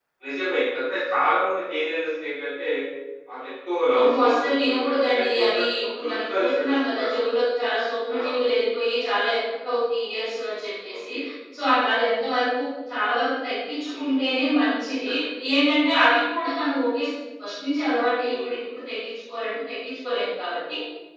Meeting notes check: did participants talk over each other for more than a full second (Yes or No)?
Yes